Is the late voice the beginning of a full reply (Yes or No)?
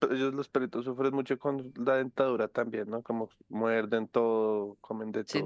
Yes